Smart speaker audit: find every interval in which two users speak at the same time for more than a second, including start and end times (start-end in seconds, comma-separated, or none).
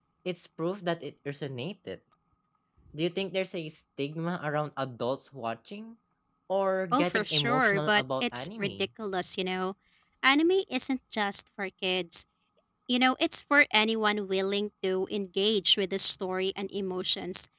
6.9-8.7